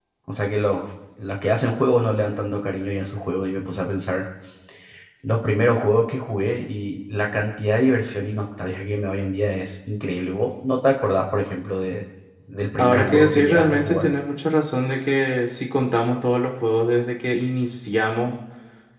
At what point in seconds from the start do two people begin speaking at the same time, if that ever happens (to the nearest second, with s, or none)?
13 s